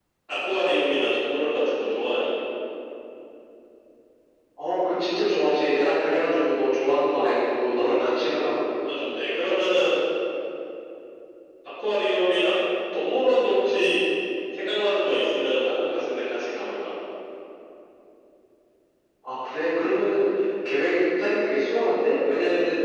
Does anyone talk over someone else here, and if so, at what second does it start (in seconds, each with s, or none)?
none